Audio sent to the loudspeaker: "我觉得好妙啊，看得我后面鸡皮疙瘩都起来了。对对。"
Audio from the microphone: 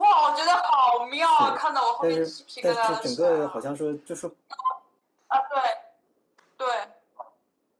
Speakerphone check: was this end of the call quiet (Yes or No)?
No